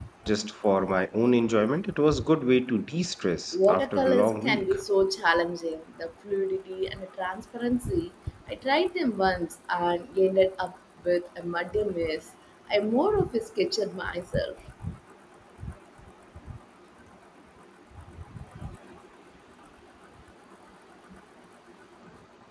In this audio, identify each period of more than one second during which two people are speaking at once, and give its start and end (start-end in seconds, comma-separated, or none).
3.5-4.7